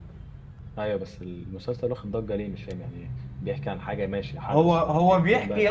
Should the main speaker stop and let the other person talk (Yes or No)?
Yes